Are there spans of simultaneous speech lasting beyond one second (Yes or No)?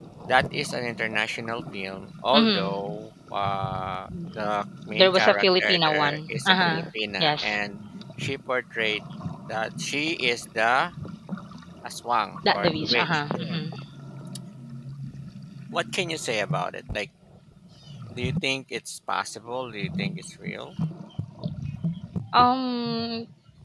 Yes